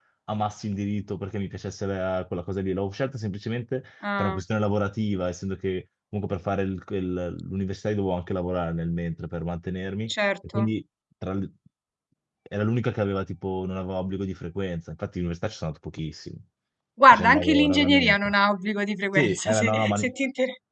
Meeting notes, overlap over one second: present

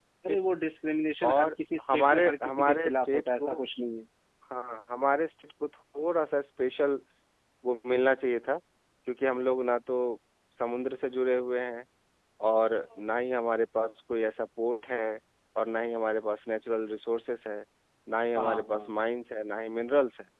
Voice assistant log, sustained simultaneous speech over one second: present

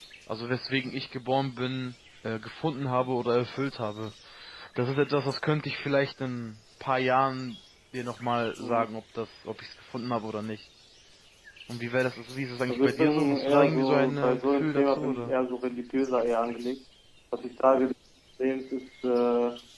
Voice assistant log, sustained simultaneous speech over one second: present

